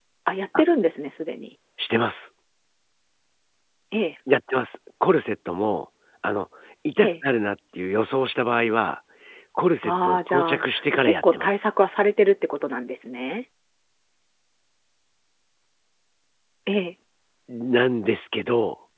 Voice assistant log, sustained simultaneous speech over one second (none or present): present